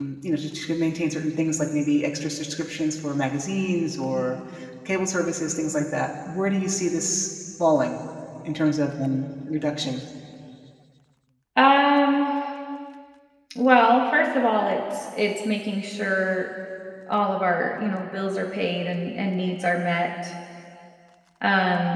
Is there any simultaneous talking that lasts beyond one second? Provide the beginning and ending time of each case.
none

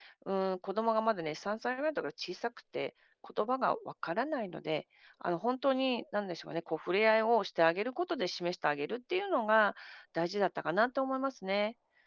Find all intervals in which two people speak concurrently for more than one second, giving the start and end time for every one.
none

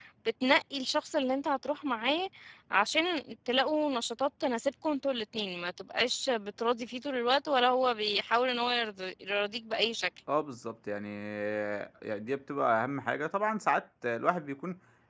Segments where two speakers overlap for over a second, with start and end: none

